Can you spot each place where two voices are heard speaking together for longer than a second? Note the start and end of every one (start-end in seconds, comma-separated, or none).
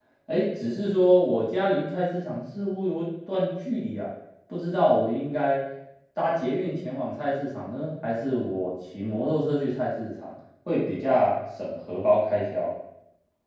none